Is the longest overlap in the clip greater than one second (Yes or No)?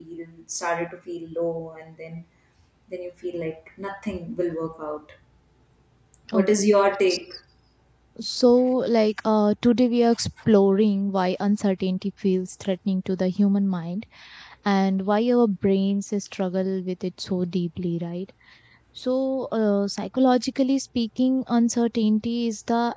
No